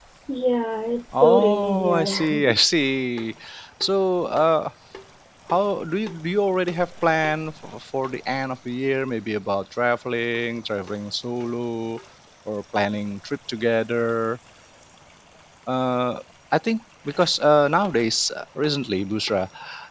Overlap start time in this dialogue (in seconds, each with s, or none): 1.1 s